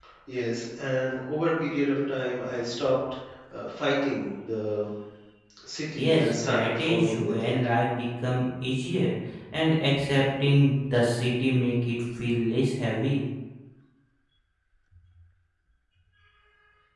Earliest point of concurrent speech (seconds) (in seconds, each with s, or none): 5.9 s